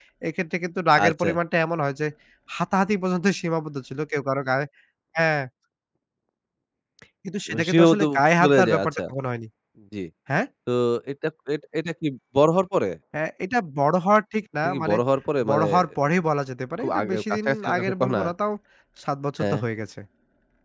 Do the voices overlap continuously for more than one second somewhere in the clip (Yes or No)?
Yes